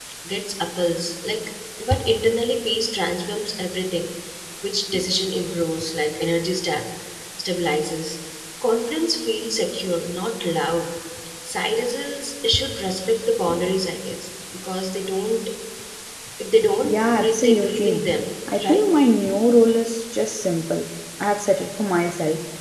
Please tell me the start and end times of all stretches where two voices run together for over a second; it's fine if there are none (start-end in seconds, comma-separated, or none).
16.8-18.1